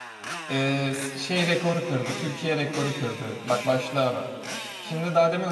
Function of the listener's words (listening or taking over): listening